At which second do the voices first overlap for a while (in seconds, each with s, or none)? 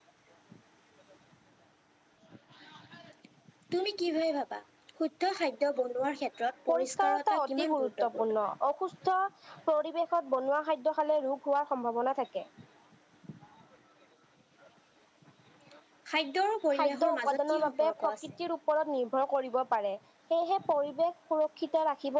6.7 s